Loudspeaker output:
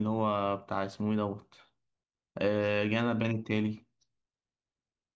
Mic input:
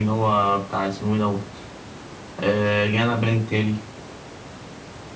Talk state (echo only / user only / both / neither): echo only